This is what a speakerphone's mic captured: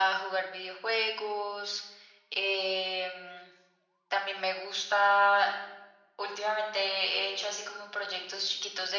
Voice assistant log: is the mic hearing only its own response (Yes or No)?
Yes